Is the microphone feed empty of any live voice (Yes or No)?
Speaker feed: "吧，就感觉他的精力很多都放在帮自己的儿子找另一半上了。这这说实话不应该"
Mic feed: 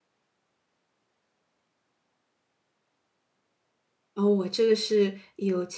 No